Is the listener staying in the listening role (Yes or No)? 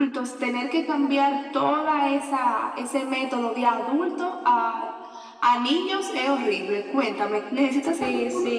No